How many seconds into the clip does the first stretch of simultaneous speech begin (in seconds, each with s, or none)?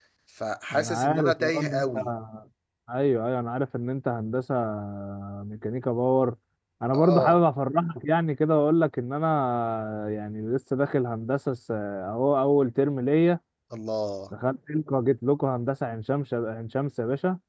0.7 s